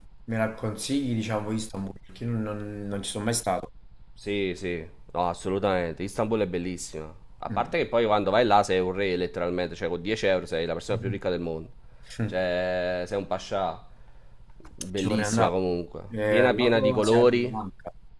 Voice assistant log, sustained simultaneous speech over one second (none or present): present